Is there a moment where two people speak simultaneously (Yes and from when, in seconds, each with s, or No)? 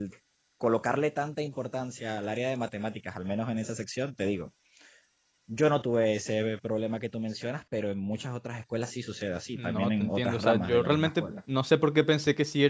Yes, from 9.5 s